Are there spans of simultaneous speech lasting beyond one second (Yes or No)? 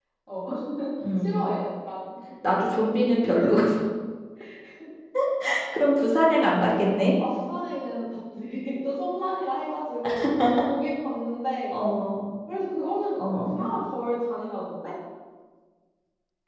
No